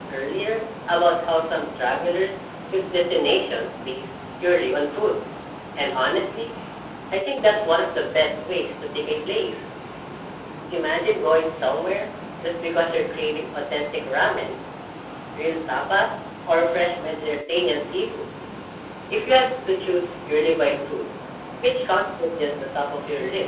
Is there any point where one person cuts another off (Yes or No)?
No